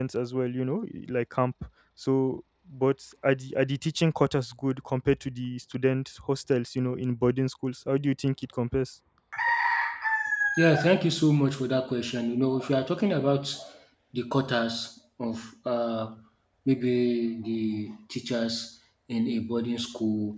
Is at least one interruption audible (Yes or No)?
No